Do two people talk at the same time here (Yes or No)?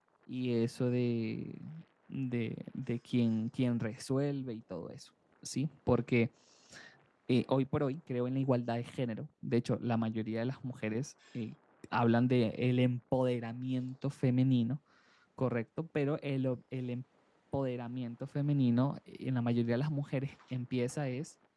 No